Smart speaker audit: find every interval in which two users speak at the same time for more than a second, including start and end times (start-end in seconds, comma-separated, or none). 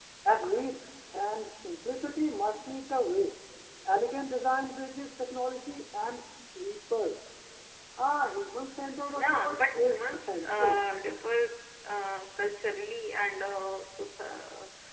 9.1-10.8